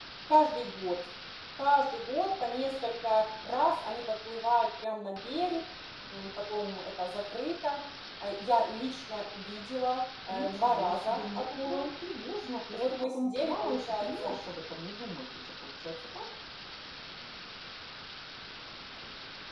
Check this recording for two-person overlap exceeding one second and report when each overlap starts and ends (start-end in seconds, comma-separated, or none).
10.3-11.9, 12.7-14.3